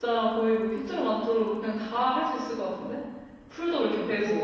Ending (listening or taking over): taking over